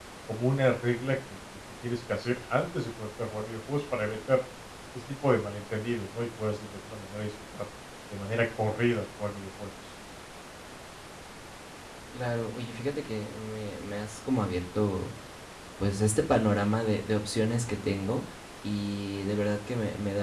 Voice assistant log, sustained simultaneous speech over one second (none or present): none